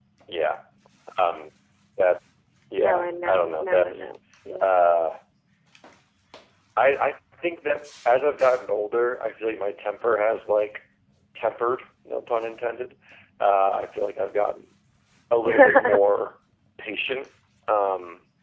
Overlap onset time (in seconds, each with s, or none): 2.8 s